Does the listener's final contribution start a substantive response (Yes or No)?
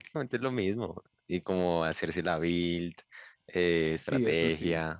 Yes